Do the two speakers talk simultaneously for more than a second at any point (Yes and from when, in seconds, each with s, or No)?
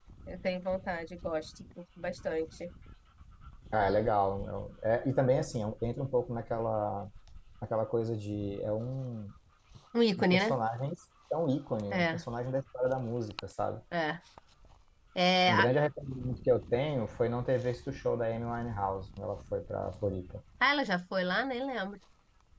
No